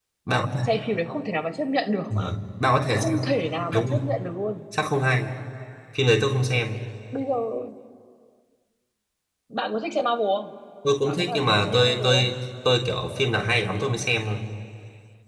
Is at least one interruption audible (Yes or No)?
Yes